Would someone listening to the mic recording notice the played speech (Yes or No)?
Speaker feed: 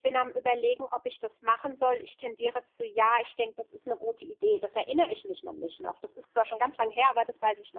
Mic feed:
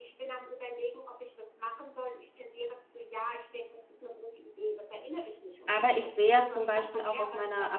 Yes